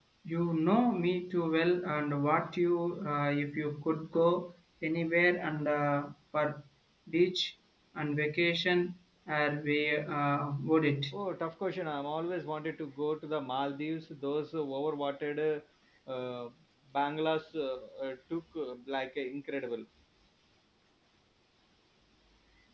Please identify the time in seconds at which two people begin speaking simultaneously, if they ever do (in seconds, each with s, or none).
none